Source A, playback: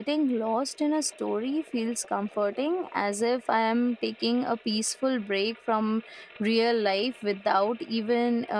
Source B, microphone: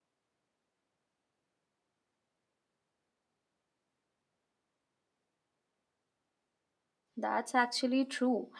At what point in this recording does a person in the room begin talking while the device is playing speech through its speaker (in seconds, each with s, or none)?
7.2 s